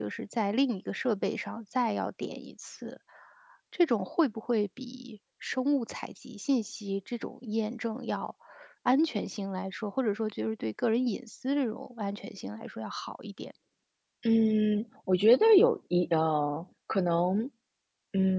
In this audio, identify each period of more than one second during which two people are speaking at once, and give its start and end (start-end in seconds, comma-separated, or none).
none